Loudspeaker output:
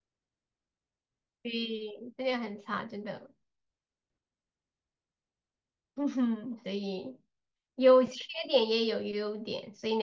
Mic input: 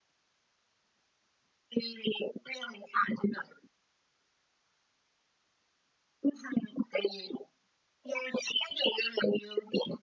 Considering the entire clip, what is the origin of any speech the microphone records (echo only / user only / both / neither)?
echo only